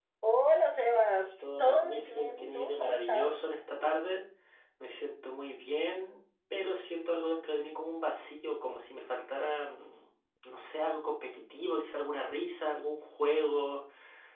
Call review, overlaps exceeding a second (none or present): present